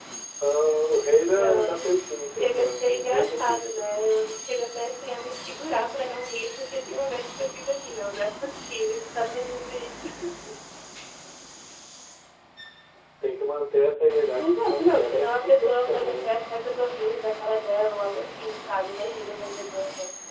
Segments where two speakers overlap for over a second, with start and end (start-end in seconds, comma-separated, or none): 2.3-4.0, 14.4-16.3